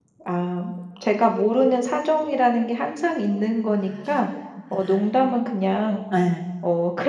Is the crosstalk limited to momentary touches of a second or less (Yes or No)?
Yes